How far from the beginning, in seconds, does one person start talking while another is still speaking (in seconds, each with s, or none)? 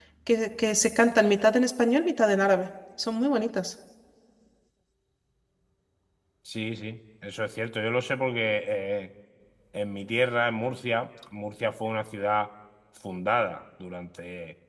none